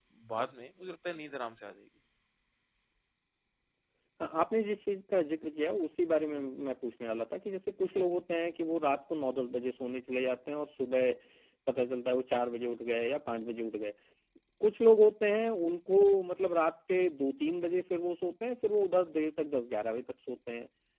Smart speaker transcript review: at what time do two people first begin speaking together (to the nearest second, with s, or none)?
none